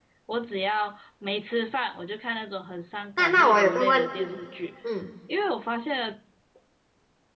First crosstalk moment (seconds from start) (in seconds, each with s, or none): 3.2 s